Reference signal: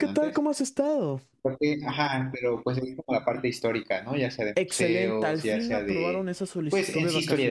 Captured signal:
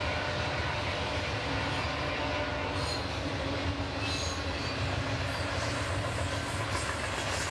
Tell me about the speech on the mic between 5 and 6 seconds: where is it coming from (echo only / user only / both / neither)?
neither